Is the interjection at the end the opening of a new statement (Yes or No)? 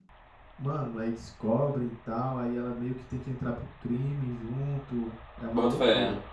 Yes